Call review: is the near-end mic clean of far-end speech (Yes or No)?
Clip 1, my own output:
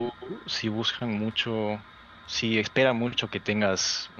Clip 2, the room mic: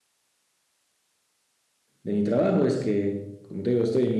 Yes